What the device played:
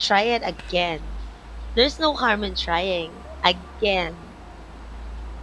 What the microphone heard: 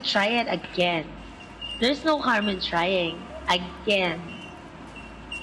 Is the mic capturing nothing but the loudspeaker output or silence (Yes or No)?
Yes